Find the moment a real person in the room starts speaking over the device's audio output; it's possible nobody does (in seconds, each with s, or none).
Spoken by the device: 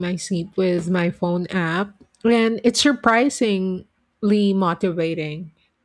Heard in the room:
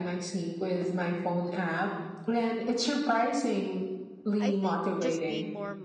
4.4 s